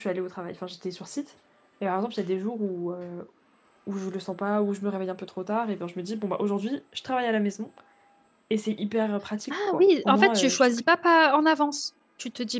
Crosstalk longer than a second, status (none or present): present